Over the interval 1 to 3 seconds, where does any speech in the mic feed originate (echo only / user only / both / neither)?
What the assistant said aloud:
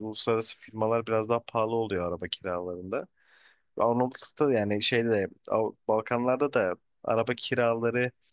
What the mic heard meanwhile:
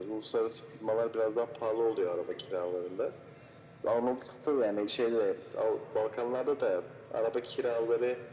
echo only